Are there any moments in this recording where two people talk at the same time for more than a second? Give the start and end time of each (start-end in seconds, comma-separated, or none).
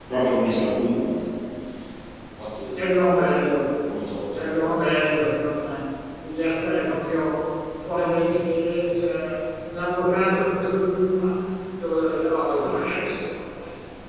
none